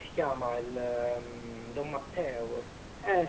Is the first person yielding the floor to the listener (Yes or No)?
Yes